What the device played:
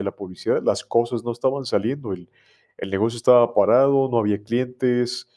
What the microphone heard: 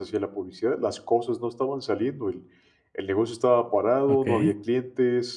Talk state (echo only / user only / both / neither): both